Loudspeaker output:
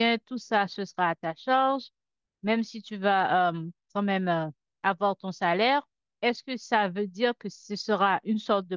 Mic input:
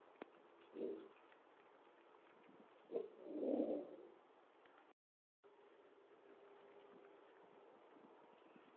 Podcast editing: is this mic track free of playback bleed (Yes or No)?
Yes